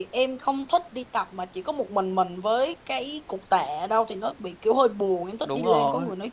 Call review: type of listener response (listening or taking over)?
taking over